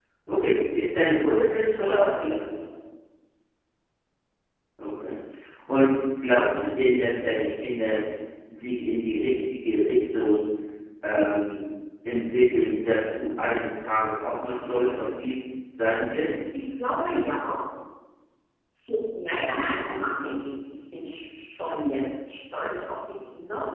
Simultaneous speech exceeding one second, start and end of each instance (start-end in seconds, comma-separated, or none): none